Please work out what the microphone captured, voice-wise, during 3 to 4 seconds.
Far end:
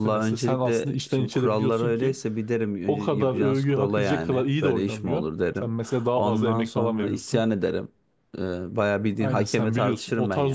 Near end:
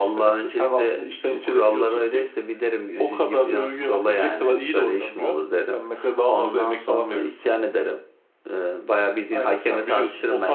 echo only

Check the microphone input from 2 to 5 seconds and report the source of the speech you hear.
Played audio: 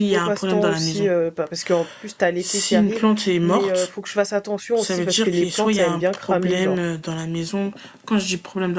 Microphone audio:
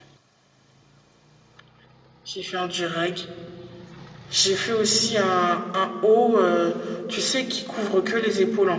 user only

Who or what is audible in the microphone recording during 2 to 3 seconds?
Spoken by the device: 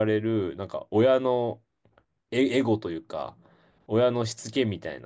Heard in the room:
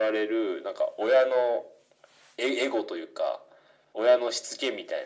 echo only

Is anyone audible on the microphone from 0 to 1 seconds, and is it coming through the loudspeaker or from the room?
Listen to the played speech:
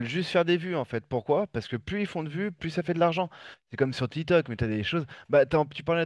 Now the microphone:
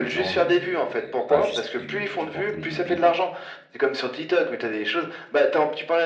both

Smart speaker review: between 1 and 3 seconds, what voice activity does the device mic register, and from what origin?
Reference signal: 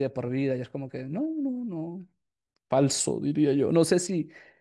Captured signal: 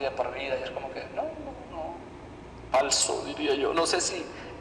echo only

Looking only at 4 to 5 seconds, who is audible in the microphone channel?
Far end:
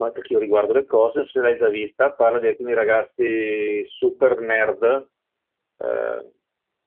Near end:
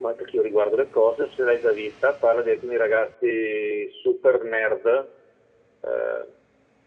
echo only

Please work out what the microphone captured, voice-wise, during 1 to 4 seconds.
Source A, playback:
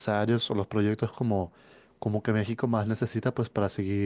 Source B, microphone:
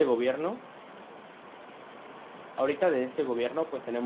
user only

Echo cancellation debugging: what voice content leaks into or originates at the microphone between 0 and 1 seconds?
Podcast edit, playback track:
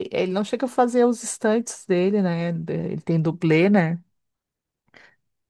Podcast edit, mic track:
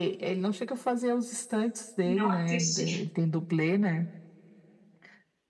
echo only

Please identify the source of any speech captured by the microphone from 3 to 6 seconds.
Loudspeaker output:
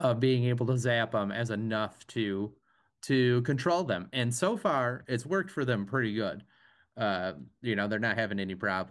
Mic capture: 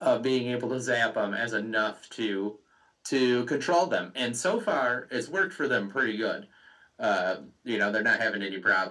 echo only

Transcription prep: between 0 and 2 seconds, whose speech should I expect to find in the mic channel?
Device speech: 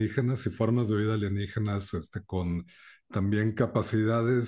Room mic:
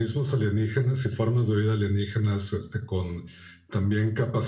echo only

